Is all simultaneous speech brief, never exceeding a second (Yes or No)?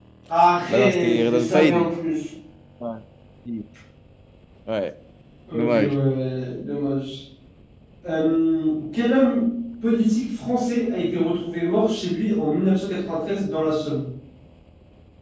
No